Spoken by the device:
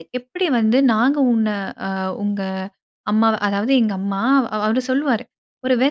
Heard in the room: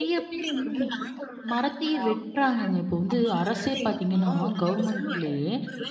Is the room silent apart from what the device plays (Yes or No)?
No